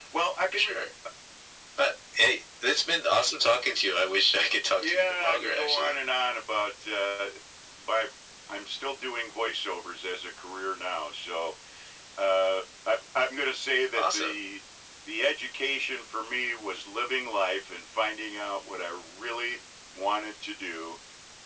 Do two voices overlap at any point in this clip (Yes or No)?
Yes